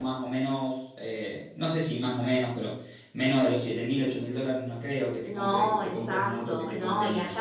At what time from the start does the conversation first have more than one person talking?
5.3 s

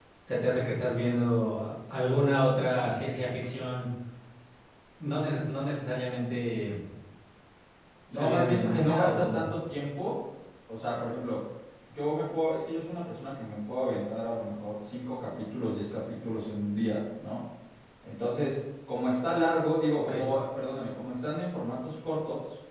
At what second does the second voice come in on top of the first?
8.1 s

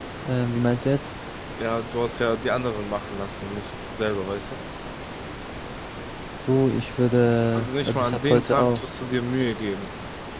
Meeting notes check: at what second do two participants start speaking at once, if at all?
7.5 s

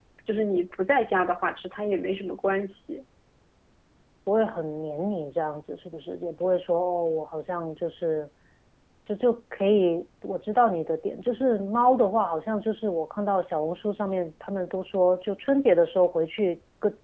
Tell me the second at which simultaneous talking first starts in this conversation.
none

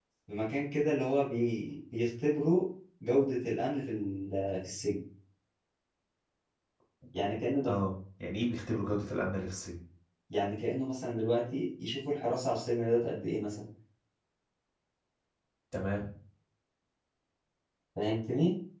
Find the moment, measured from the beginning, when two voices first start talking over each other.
none

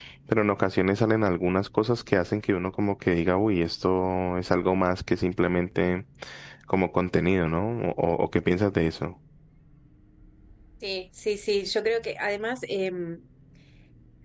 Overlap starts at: none

